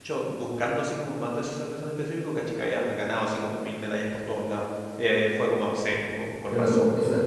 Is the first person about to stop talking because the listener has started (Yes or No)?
Yes